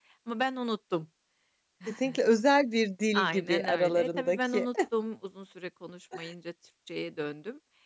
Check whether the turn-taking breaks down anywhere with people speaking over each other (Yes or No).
Yes